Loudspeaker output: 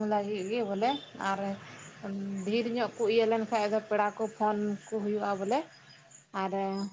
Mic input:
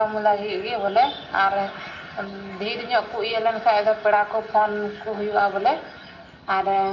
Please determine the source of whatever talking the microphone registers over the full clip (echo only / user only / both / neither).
echo only